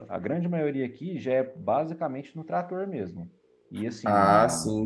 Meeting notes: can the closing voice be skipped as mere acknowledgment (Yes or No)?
No